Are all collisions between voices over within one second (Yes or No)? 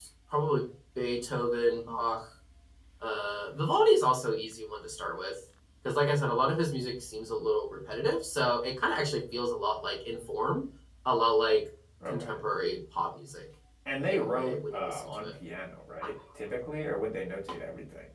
No